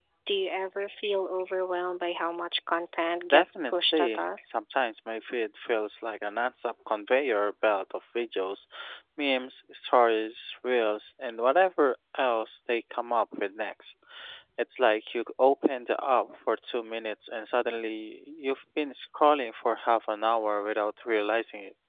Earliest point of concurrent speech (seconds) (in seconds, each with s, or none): 3.3 s